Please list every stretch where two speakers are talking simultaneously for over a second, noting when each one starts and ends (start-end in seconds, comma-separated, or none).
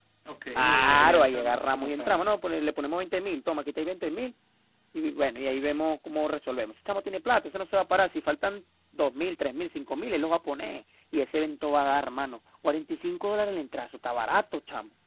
0.6-2.2